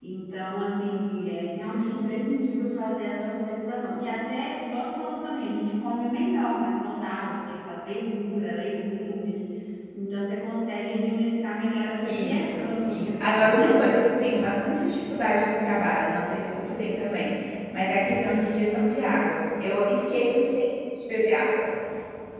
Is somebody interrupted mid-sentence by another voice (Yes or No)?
Yes